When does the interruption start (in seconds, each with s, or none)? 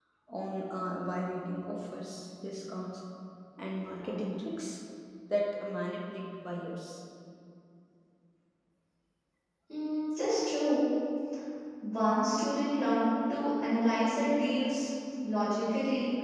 none